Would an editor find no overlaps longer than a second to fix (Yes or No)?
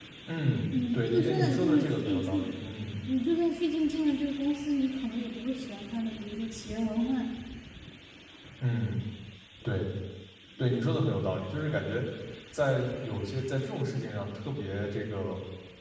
No